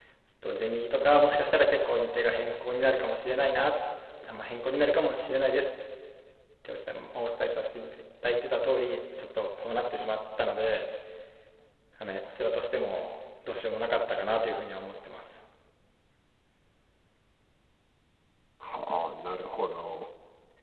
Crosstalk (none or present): none